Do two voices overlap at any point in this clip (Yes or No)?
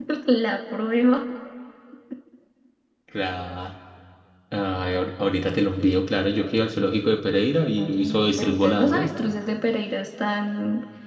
Yes